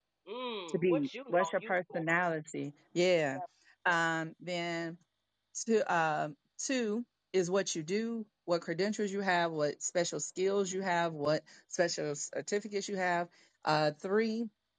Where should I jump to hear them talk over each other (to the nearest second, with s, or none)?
1 s